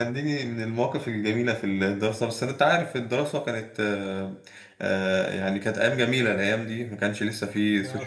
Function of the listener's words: listening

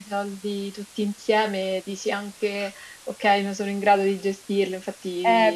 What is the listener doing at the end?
taking over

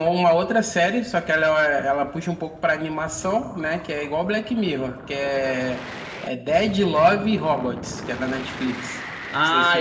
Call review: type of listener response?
taking over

